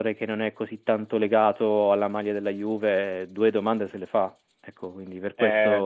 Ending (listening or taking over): taking over